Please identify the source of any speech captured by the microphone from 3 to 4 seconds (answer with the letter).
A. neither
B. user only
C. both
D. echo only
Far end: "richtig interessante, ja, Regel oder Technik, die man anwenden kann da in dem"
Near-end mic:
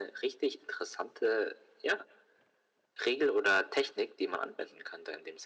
D